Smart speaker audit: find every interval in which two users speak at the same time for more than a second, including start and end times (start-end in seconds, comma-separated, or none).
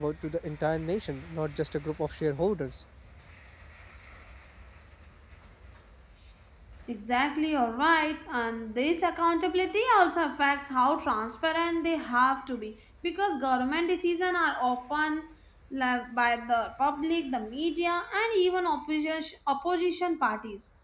none